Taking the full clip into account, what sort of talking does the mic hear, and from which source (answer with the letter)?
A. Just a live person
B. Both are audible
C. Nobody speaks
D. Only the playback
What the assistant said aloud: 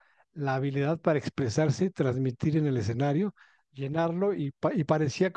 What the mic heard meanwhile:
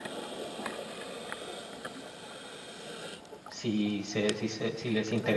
A